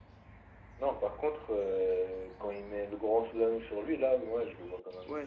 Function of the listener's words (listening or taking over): taking over